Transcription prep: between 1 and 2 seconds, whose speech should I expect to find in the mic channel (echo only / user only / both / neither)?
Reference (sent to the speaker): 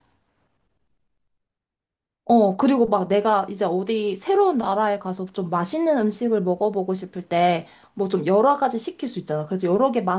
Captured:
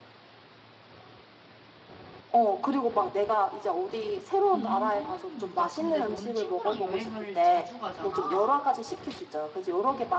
neither